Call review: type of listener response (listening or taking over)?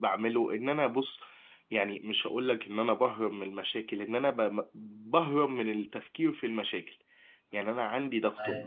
listening